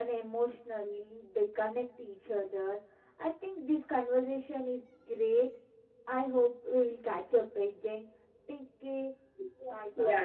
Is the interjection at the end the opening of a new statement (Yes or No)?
Yes